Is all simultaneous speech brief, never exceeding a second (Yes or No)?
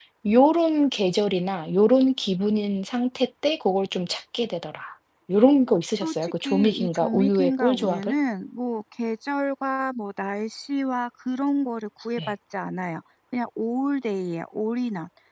No